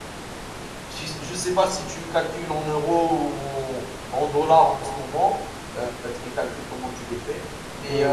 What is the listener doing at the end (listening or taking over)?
listening